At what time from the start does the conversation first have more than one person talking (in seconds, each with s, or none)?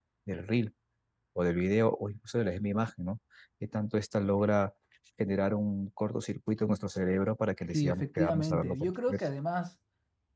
7.7 s